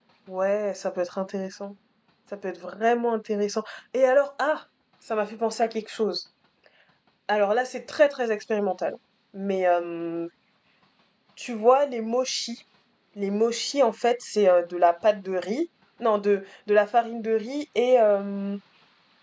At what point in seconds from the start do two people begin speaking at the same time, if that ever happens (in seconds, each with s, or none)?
none